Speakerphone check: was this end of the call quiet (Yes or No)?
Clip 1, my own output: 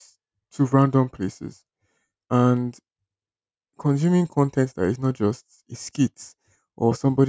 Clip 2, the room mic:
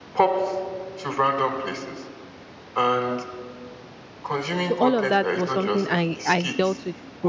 No